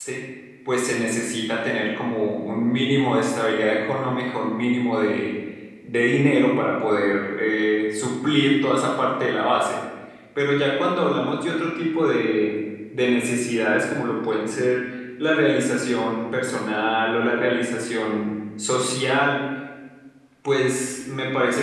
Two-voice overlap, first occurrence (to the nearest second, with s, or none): none